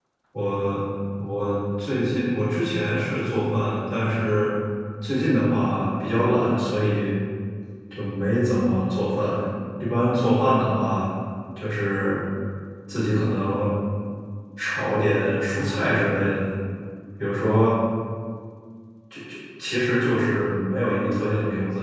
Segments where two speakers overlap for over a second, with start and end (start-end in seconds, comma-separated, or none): none